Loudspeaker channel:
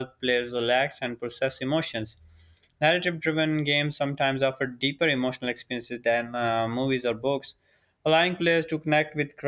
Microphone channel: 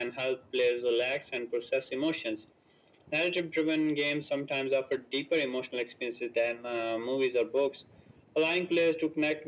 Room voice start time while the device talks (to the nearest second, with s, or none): none